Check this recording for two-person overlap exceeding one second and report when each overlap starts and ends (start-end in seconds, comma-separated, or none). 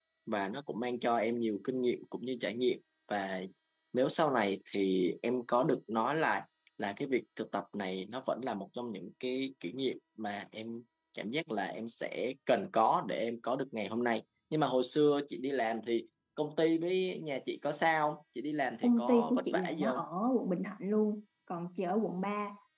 18.8-20.1